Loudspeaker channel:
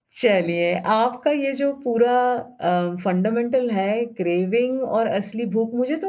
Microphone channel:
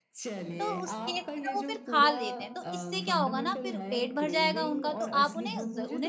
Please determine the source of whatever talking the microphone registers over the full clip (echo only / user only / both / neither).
both